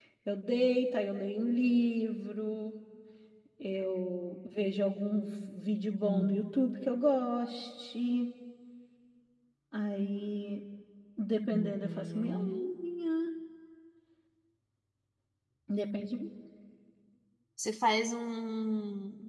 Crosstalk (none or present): present